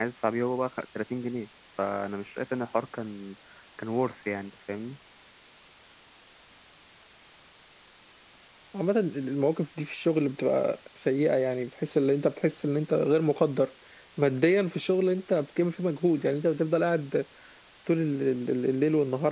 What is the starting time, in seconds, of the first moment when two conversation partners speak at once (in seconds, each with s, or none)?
none